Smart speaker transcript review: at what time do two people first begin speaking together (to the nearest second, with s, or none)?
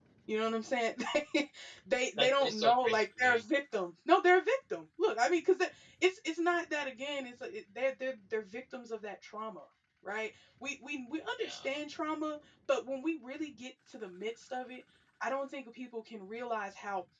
2 s